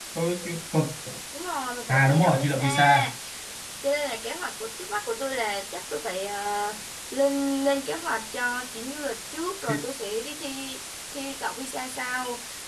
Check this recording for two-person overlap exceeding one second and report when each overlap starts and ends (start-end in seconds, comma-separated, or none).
1.9-3.1